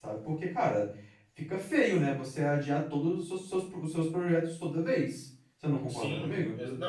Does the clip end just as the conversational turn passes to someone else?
Yes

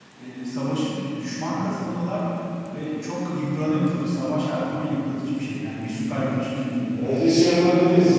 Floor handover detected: Yes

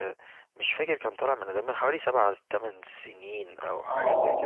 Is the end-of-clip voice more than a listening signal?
Yes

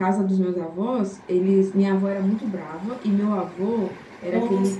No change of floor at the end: Yes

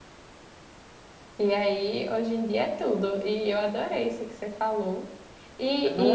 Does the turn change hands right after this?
No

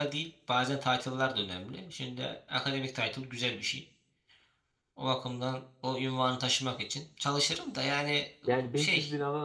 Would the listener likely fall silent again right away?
No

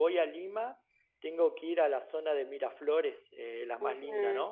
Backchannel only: No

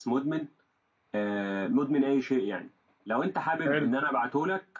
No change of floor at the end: Yes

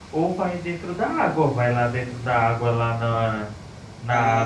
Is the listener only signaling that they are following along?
Yes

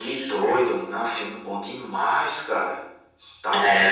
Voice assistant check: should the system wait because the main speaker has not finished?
Yes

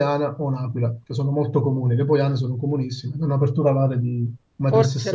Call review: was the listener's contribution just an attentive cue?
No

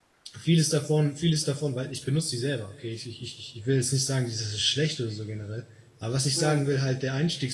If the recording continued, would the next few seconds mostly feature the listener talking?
No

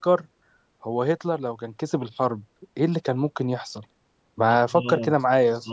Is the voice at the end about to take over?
Yes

